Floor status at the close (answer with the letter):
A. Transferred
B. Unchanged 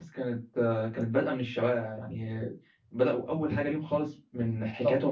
B